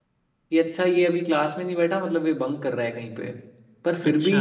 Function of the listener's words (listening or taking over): listening